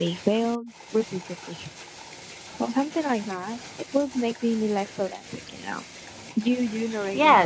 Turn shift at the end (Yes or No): Yes